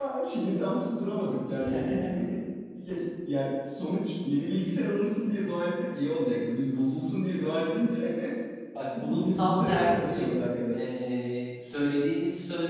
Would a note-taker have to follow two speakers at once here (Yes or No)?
Yes